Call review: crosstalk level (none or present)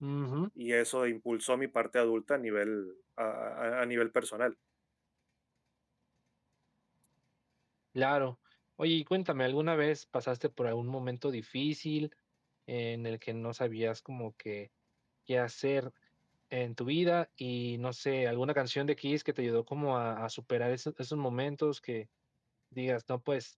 none